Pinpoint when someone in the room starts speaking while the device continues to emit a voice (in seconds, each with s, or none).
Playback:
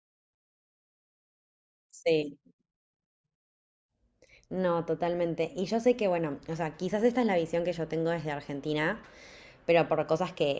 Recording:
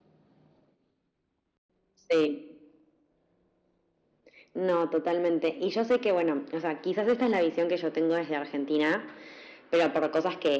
none